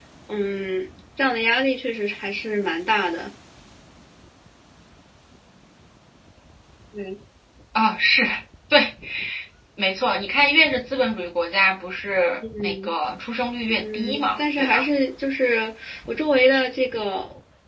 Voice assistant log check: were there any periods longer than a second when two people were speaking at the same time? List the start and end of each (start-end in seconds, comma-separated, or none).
13.7-14.9